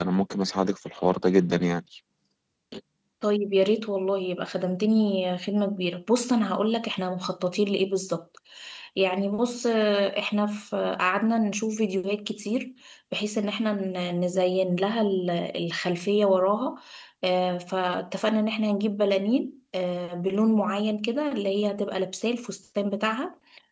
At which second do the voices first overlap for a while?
none

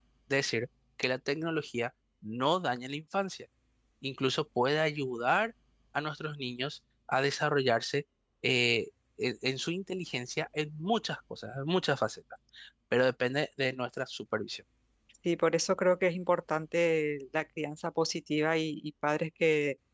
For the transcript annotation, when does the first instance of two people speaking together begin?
none

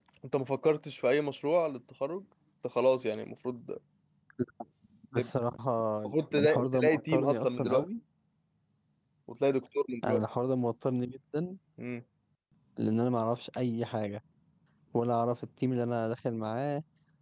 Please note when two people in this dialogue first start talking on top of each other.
6 s

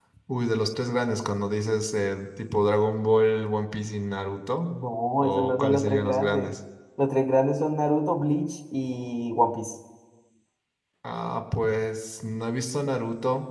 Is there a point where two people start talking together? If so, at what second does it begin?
5 s

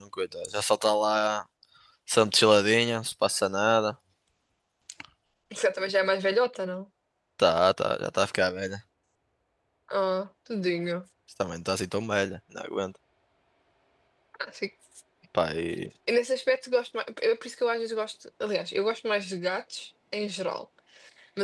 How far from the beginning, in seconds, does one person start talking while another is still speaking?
none

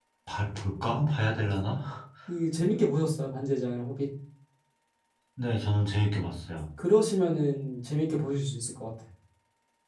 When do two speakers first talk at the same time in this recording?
none

